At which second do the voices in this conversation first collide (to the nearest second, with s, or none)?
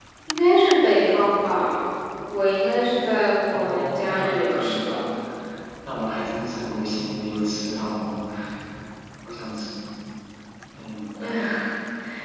4 s